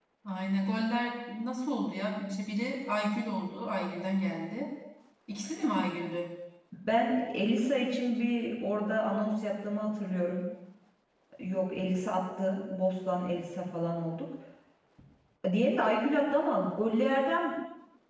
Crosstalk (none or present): none